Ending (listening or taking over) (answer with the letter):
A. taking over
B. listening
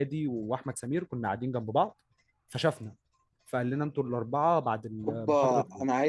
A